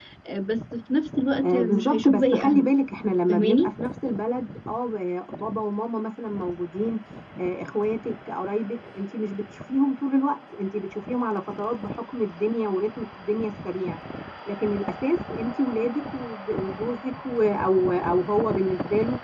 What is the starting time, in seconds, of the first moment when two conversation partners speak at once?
1.4 s

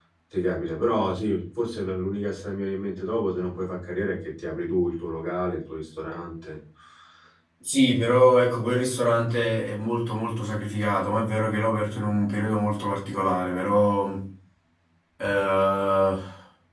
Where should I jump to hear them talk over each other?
none

